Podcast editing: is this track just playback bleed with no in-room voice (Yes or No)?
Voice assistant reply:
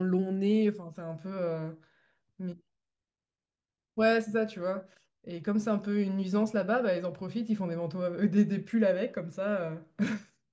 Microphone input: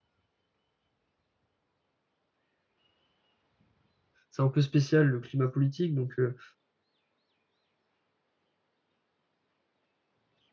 No